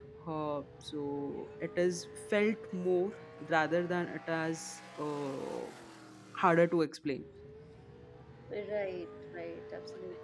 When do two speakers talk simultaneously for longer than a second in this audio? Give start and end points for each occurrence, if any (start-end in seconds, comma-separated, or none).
none